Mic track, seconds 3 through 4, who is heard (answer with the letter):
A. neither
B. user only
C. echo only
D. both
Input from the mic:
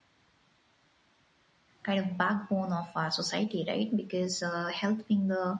B